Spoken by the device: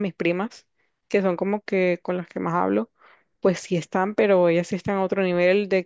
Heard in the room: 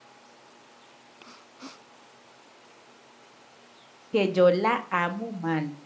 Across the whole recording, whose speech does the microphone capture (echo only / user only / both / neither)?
user only